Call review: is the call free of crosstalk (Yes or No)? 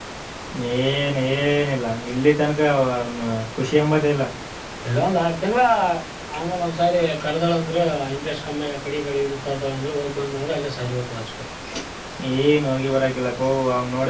Yes